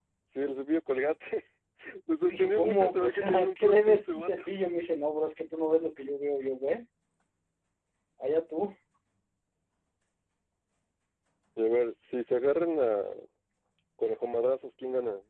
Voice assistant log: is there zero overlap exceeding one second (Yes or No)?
No